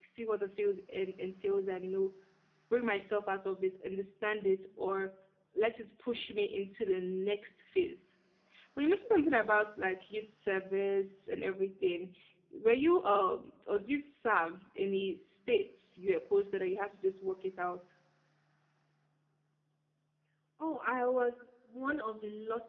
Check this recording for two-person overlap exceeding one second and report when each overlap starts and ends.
none

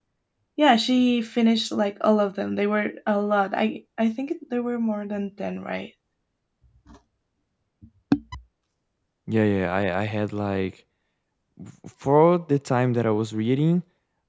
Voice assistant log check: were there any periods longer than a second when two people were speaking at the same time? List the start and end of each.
none

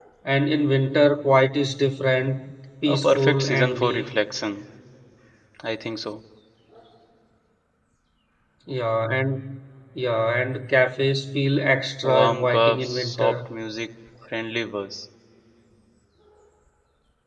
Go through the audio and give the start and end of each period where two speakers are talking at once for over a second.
2.9-4.1, 12.0-13.4

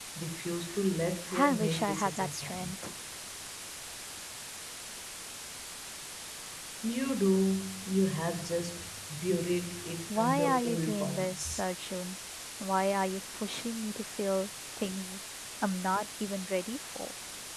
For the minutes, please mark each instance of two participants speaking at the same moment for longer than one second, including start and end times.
1.4-2.7, 10.2-11.7

